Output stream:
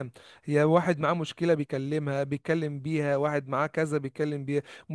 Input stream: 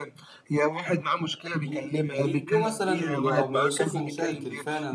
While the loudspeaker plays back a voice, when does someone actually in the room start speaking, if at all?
1 s

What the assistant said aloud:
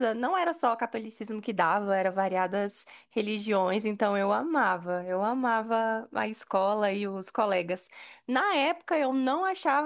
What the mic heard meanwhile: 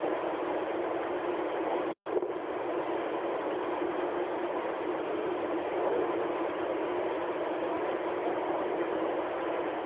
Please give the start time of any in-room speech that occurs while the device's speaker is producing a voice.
none

